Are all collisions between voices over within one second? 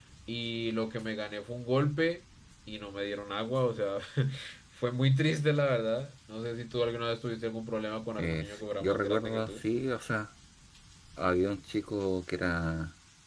No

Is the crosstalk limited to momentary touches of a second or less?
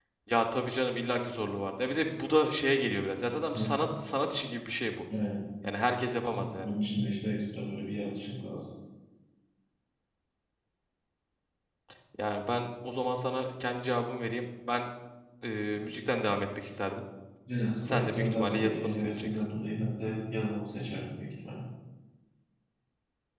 No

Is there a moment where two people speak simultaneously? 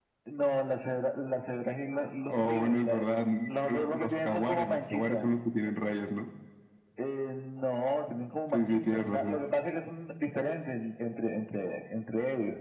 Yes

